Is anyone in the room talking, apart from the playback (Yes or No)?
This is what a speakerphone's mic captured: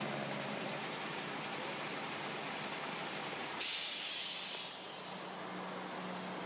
No